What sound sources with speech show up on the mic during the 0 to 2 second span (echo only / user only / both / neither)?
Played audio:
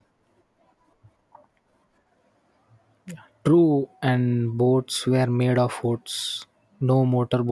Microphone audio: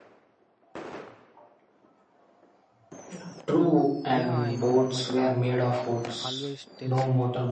neither